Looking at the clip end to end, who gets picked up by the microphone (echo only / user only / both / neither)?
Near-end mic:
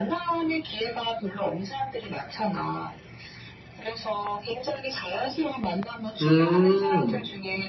both